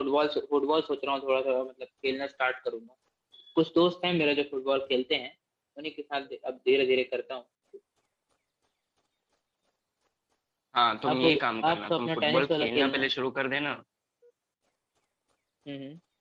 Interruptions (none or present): present